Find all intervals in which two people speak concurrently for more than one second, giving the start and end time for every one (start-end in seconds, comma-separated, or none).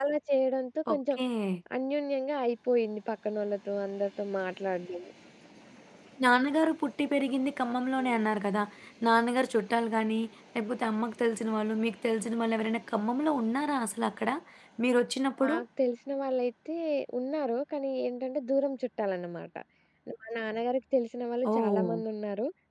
none